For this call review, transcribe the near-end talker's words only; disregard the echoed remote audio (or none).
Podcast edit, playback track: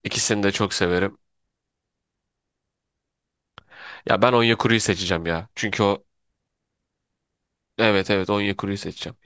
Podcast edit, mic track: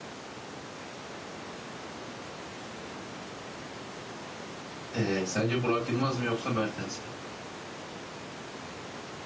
Ee, sence Burak Yılmaz mı yoksa Mertens mi?